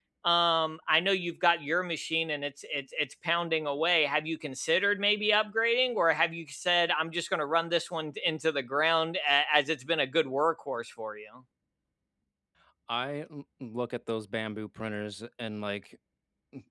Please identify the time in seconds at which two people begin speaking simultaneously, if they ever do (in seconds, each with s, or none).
none